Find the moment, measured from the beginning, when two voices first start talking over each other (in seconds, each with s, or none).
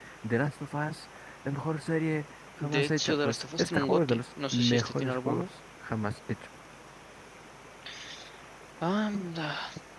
2.6 s